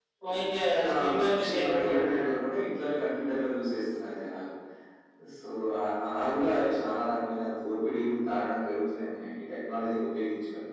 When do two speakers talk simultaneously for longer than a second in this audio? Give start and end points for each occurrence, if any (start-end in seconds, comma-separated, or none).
1.0-2.3